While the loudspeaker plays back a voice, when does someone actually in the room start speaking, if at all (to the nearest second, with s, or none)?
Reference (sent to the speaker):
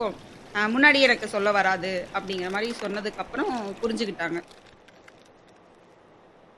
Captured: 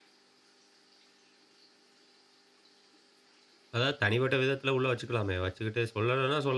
4 s